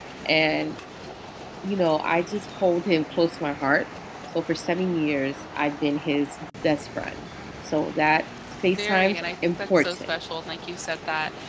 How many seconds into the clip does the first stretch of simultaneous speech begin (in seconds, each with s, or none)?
8.6 s